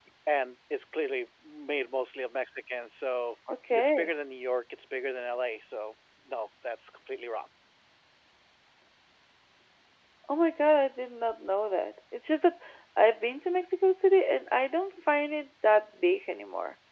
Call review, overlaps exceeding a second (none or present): none